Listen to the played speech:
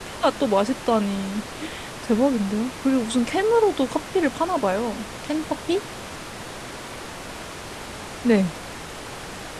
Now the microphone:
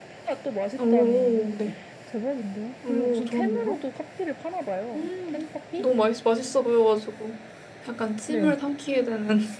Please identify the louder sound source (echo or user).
user